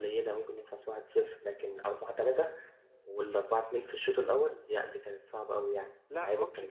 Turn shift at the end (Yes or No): Yes